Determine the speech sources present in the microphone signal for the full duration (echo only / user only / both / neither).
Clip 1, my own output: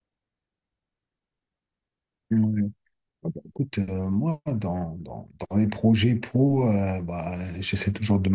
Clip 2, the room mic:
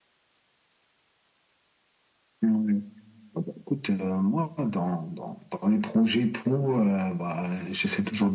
echo only